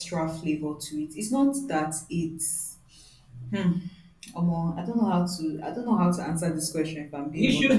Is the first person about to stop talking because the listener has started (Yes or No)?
Yes